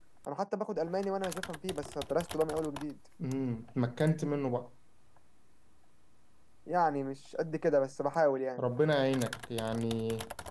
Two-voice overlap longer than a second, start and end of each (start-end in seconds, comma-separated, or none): none